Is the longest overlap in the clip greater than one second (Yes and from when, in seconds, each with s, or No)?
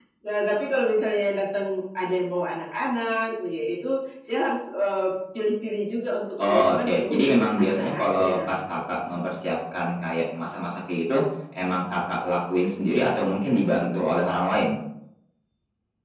Yes, from 6.4 s